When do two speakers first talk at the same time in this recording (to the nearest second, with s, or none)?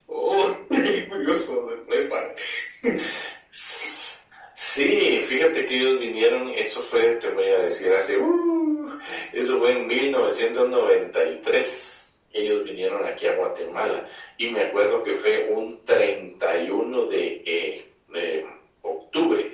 none